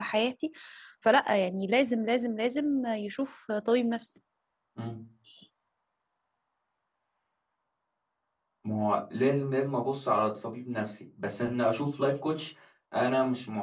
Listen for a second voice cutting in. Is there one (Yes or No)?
No